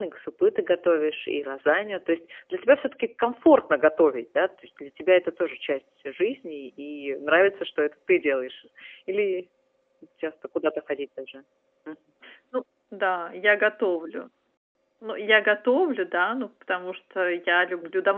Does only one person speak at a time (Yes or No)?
Yes